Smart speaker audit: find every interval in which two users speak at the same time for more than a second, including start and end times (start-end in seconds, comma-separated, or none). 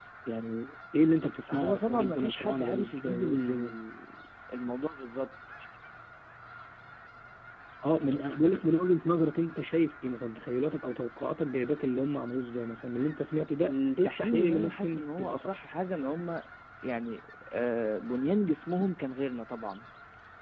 1.5-3.8, 13.6-15.6